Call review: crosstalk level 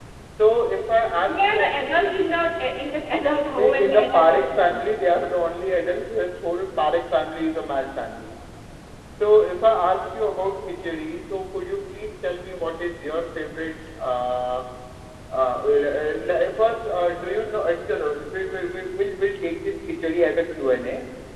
present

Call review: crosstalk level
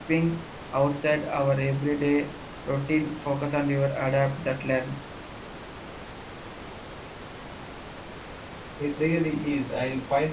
none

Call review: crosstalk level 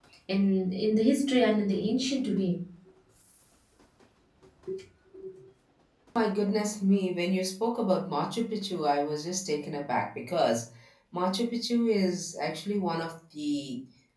none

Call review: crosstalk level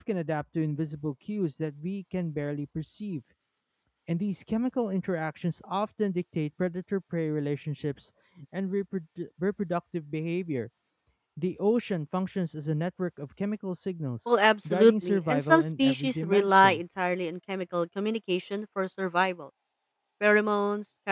present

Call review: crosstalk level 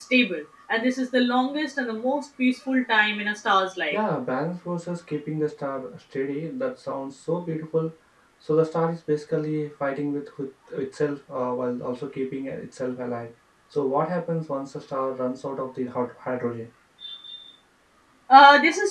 none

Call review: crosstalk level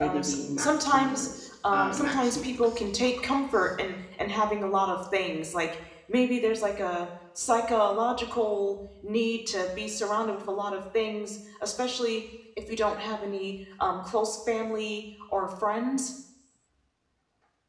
present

